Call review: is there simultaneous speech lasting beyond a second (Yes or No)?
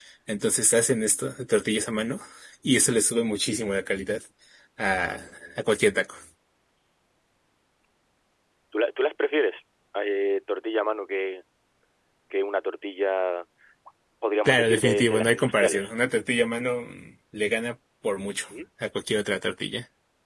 Yes